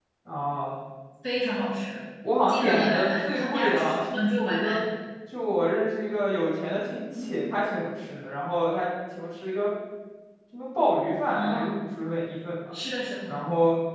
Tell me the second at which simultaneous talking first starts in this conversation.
2.5 s

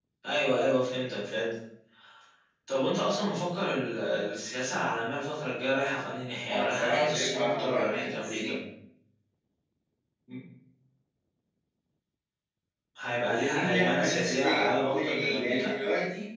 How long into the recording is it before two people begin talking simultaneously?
6.5 s

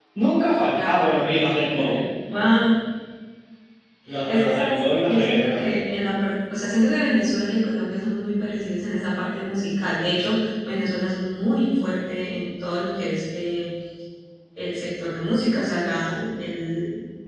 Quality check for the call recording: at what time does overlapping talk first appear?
0.8 s

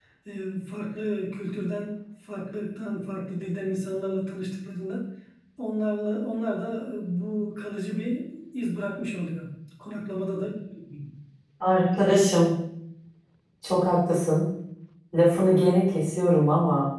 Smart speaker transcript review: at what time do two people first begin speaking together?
none

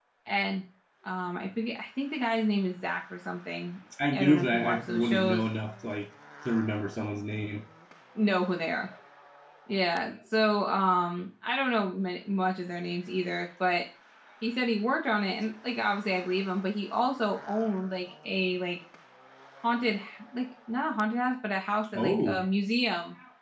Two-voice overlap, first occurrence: 4.1 s

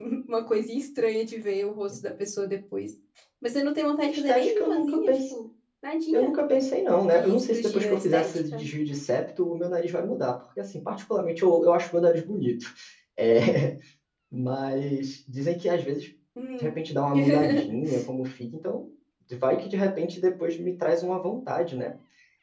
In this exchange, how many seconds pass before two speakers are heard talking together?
4.0 s

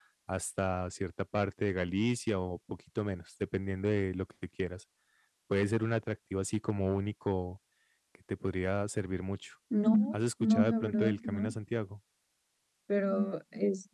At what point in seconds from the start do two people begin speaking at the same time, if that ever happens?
10.1 s

